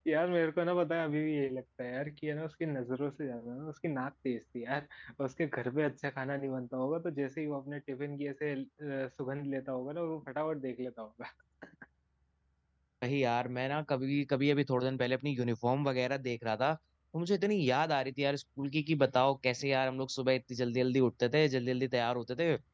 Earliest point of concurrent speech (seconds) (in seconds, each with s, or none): none